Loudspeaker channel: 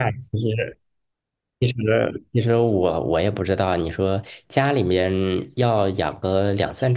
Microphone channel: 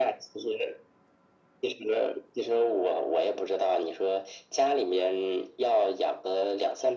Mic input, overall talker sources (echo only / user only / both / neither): echo only